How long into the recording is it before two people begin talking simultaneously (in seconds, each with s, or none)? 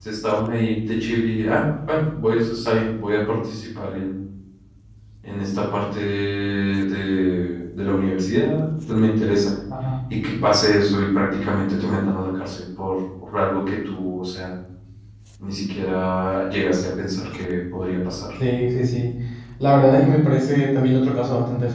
none